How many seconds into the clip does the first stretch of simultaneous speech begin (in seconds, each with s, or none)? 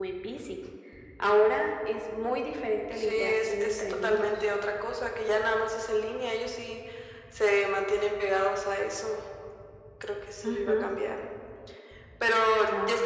2.9 s